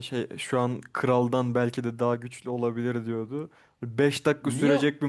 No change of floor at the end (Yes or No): Yes